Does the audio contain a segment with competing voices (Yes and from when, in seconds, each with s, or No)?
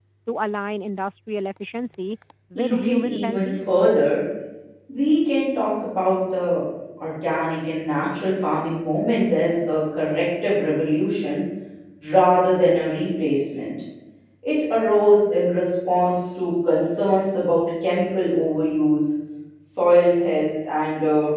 Yes, from 2.5 s